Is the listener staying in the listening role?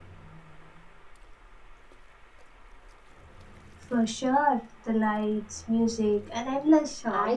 No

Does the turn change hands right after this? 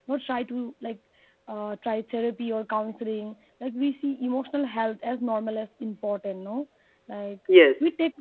No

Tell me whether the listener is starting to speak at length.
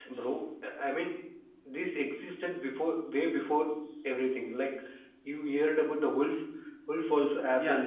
Yes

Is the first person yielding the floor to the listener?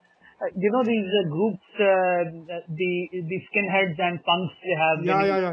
Yes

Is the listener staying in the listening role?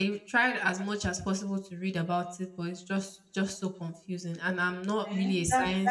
No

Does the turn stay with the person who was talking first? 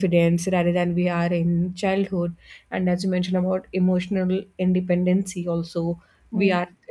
Yes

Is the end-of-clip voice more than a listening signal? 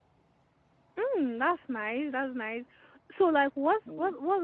No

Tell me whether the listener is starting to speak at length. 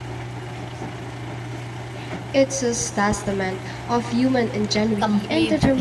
Yes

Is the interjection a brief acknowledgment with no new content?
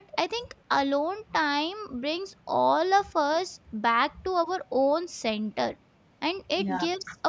Yes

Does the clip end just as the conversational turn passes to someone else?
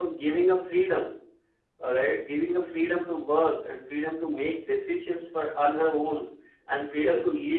No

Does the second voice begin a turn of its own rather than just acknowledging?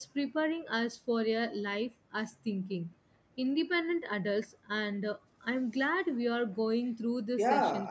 Yes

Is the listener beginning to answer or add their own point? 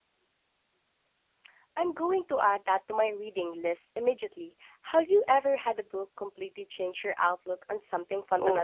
Yes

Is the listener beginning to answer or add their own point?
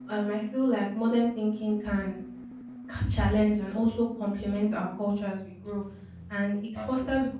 No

